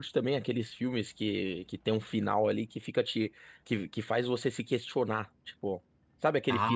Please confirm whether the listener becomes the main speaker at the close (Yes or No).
No